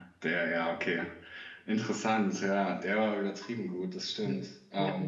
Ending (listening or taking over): taking over